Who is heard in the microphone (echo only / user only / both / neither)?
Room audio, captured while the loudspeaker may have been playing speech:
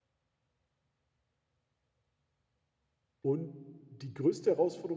user only